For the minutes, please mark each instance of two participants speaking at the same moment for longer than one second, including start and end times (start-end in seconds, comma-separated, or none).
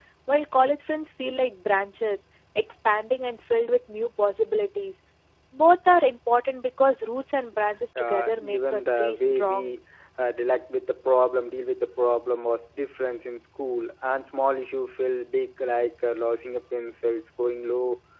8.0-9.7